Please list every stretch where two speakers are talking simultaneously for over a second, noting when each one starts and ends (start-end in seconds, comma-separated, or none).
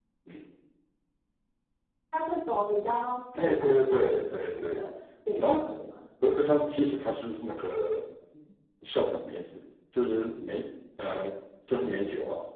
3.4-4.9